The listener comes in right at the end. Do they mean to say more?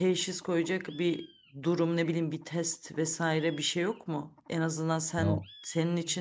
No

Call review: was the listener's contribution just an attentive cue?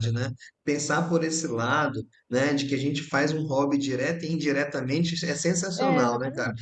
Yes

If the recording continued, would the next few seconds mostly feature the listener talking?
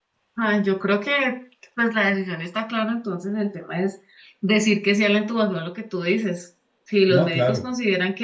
No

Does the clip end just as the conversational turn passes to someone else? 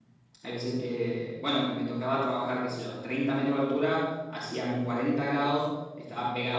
No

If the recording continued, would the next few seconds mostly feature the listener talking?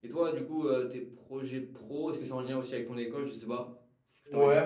Yes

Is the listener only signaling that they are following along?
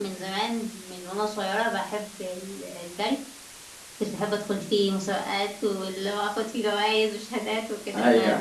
Yes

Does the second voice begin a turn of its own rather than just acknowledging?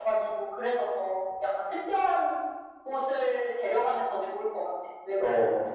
Yes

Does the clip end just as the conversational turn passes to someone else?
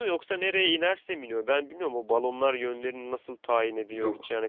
No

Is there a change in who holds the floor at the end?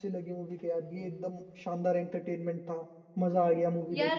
Yes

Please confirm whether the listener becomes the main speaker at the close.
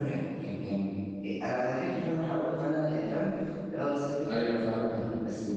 No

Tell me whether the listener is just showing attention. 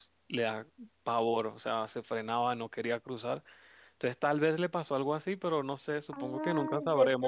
No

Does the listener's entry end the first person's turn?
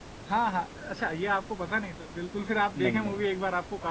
No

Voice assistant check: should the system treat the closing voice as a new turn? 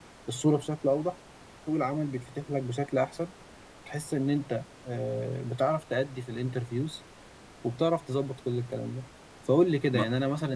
No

